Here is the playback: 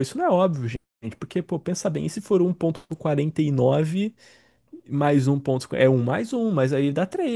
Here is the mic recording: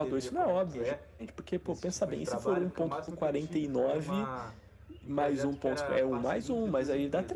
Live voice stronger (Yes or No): No